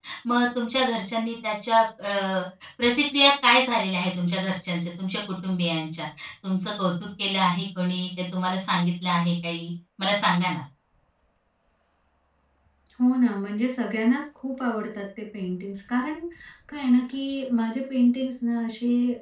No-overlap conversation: Yes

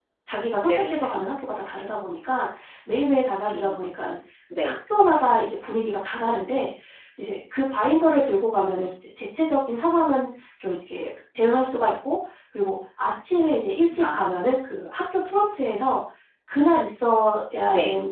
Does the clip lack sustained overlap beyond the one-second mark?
Yes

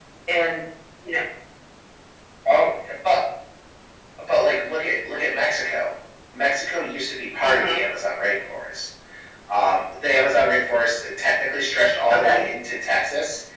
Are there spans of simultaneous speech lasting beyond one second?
No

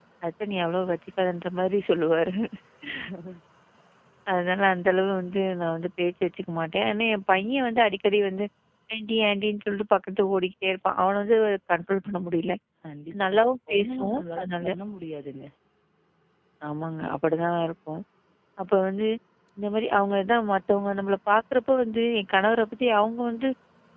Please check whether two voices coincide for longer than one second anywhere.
Yes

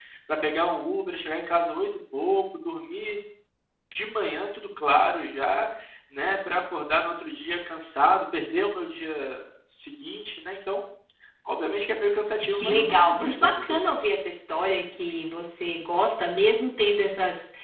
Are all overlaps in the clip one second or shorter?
No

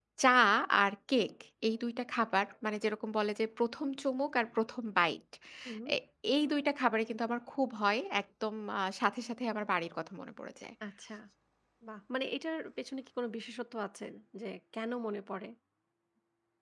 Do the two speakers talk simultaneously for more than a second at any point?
No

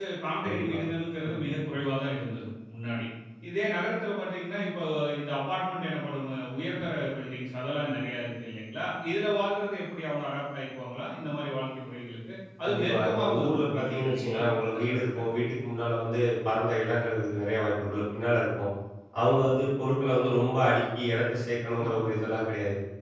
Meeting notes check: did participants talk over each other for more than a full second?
Yes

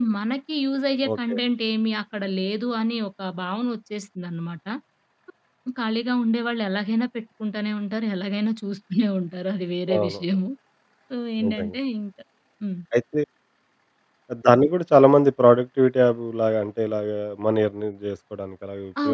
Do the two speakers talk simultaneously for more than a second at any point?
No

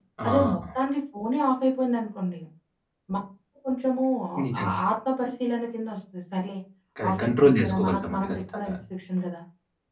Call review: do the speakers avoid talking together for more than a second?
No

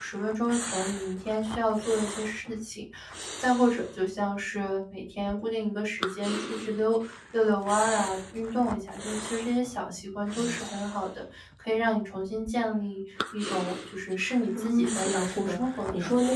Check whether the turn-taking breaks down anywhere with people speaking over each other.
Yes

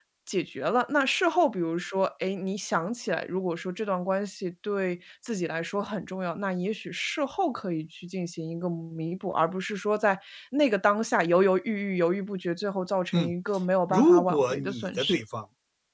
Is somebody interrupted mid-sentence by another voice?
Yes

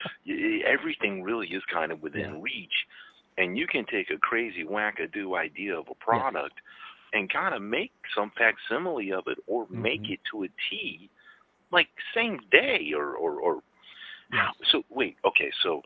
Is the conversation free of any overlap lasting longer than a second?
Yes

